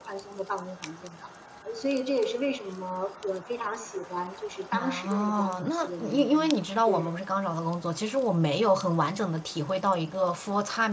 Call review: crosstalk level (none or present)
present